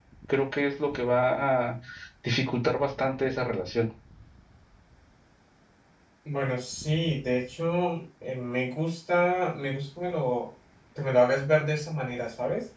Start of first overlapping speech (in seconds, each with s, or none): none